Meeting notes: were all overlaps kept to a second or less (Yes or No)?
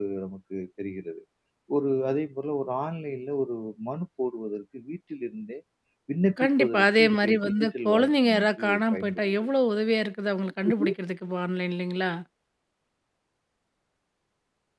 No